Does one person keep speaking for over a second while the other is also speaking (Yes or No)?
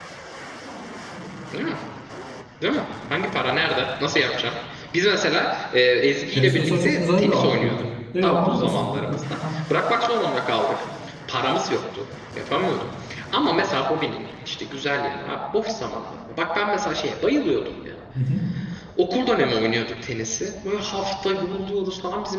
Yes